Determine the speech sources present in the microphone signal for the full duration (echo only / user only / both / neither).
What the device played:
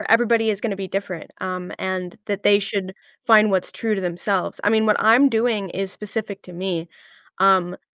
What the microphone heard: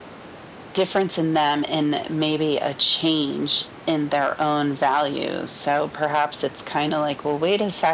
user only